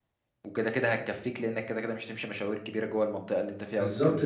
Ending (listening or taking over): taking over